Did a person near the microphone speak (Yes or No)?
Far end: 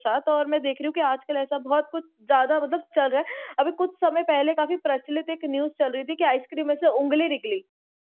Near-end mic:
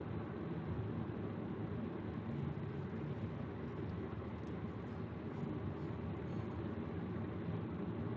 No